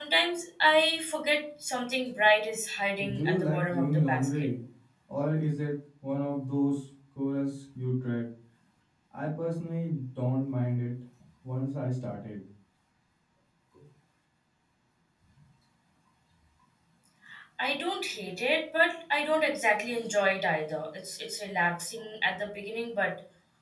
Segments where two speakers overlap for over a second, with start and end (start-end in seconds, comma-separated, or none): 3.1-4.5